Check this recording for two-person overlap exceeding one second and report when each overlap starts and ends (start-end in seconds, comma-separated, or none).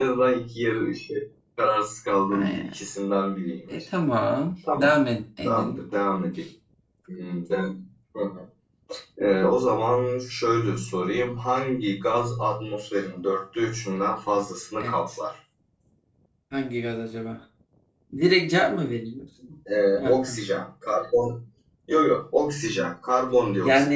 none